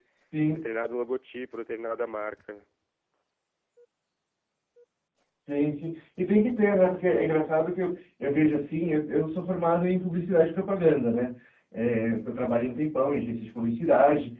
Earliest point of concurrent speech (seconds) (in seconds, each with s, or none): none